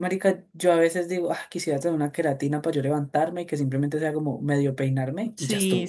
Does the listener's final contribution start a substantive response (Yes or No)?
Yes